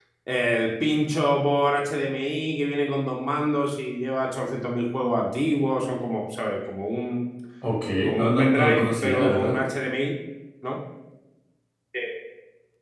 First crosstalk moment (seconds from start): 8 s

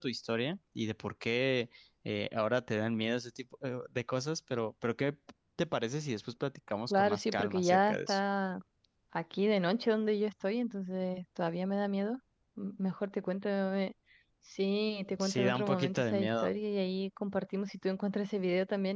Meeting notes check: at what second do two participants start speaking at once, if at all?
7 s

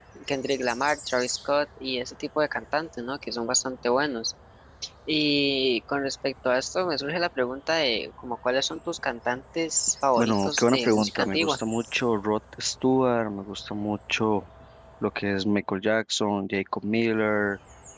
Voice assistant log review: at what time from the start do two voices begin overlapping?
10 s

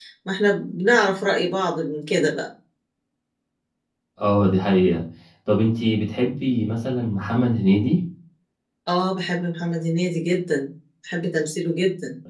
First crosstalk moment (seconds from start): none

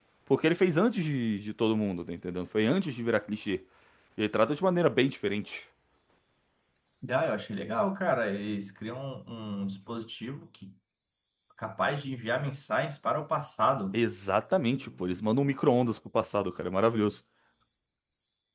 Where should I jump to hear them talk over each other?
none

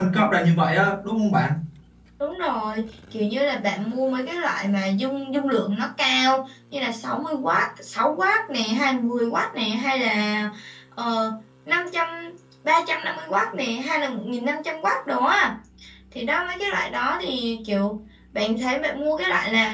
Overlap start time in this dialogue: none

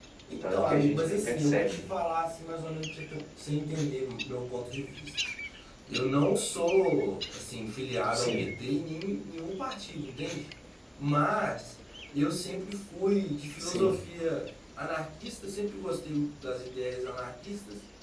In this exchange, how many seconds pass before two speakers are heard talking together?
1 s

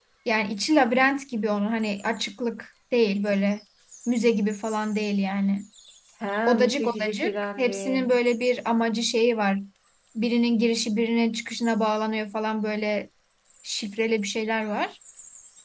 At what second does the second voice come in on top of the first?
6 s

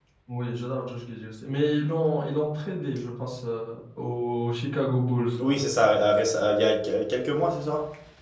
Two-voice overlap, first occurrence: none

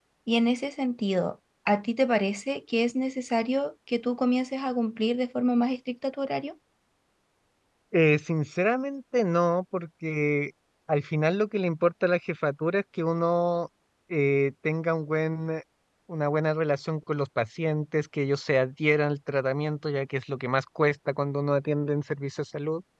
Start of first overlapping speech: none

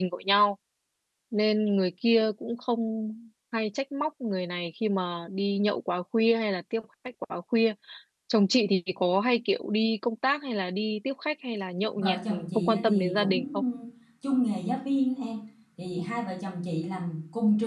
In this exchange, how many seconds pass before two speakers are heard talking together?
12 s

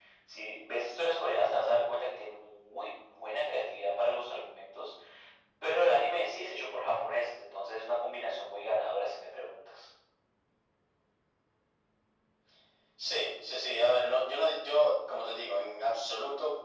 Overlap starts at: none

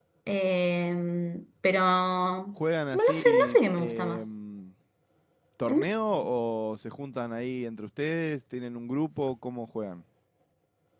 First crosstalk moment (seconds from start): 3 s

